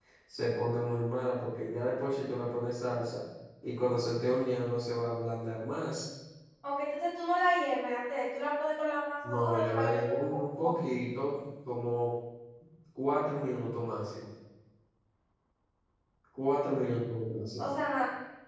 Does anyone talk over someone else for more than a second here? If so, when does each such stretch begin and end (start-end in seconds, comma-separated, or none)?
9.3-10.8